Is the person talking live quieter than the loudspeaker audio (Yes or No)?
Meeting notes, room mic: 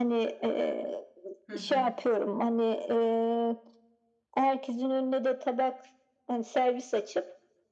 Yes